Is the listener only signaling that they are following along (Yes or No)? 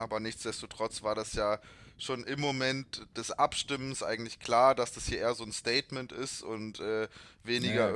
Yes